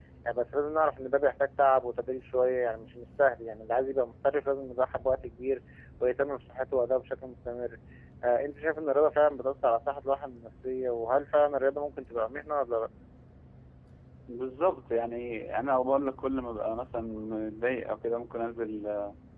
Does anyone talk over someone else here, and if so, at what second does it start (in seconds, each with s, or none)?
none